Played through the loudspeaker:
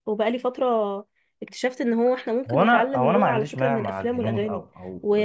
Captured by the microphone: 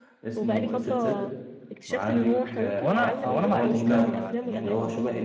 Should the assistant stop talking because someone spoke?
Yes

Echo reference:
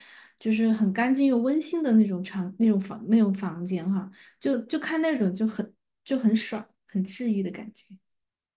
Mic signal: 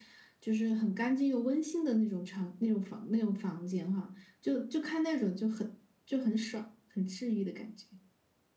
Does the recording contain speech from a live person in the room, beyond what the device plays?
No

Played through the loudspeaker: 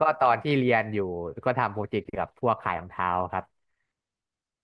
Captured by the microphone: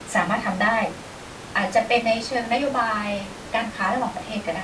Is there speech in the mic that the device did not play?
Yes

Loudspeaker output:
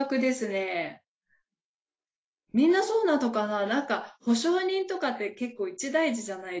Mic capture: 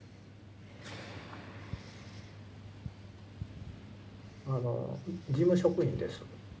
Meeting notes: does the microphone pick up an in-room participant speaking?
Yes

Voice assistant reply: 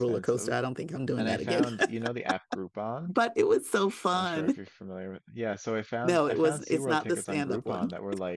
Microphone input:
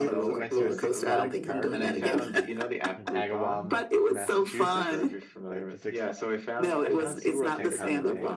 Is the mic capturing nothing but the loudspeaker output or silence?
No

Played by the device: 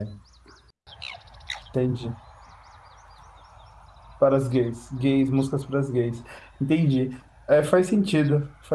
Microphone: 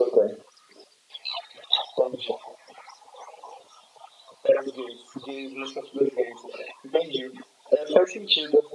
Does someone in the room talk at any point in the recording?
No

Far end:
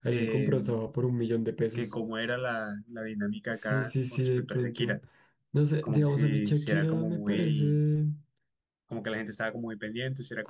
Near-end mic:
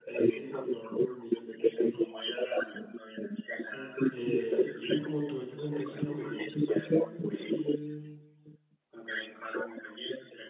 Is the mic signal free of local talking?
No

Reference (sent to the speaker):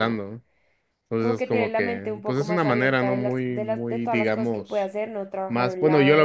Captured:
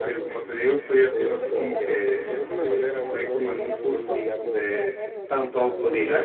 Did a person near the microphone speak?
Yes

